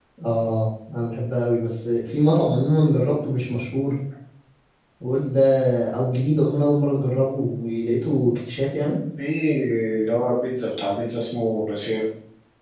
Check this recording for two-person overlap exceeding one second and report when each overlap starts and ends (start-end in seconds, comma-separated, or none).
none